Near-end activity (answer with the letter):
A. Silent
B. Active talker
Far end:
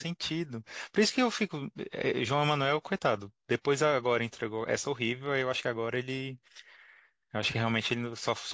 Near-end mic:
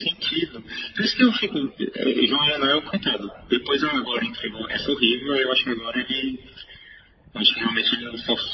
A